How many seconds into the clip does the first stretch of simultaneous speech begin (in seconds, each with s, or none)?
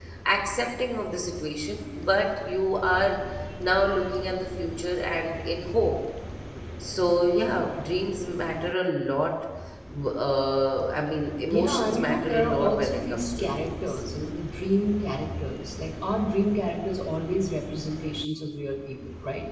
11.5 s